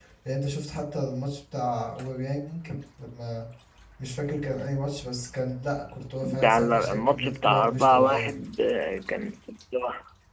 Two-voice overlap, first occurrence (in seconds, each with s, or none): 6.2 s